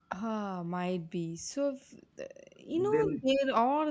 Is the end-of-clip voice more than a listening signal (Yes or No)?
No